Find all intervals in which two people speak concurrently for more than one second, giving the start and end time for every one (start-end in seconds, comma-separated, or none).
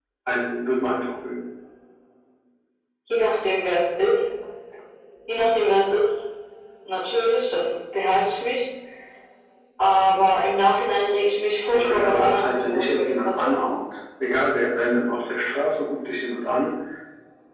11.7-13.8